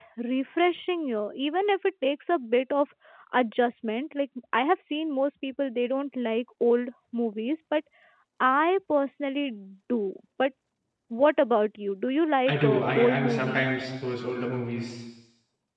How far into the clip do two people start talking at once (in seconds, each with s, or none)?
12.5 s